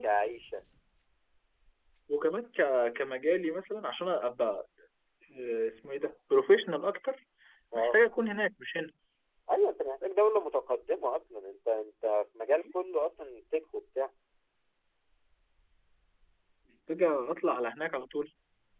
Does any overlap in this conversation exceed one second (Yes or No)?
No